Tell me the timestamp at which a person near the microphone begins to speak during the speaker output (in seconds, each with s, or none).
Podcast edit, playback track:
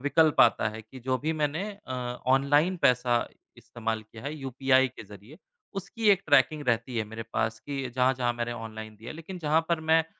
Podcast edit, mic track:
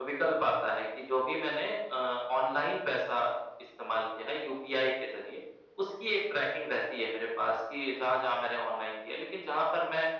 none